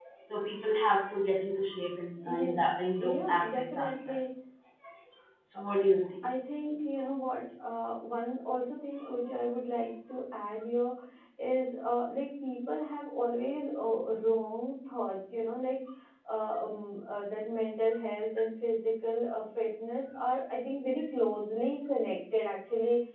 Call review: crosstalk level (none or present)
present